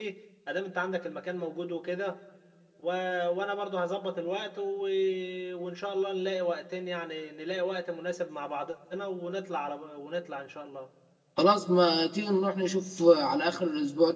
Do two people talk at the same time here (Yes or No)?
No